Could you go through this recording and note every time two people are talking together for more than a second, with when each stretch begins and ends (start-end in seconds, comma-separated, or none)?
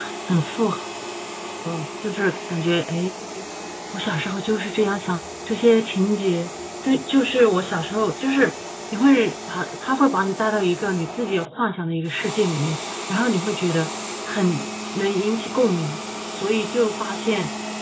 none